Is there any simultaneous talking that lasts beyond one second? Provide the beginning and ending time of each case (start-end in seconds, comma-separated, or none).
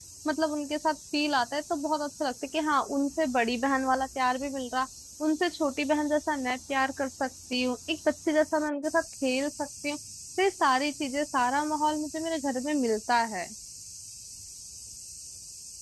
none